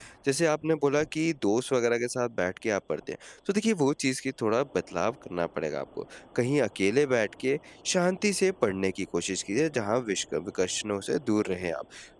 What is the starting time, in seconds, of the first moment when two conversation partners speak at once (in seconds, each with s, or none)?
none